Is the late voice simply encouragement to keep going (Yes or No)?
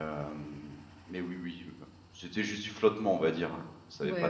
No